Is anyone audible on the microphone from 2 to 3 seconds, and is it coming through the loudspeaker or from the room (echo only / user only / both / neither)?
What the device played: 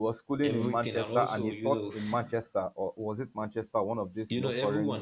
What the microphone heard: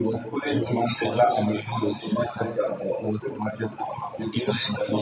echo only